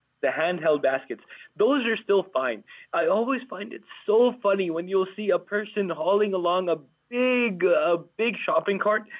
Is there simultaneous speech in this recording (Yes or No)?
No